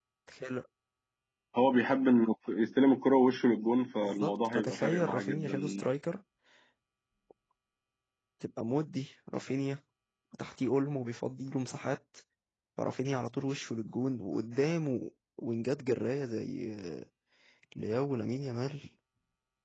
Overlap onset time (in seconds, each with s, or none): 4.0 s